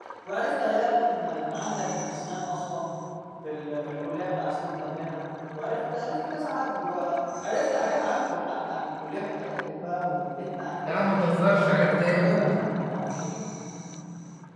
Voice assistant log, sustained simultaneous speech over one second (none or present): present